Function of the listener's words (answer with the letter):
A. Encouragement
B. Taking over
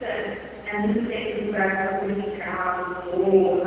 B